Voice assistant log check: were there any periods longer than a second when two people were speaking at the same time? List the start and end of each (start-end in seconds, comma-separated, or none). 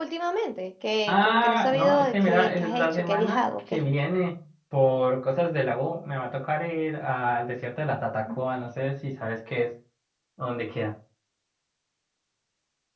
1.1-3.8